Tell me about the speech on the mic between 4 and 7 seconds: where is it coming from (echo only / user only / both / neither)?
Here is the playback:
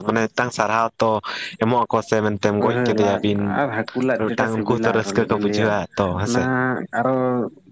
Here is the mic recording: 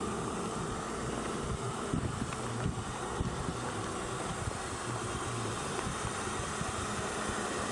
neither